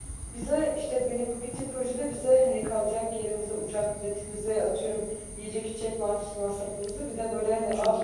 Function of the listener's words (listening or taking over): listening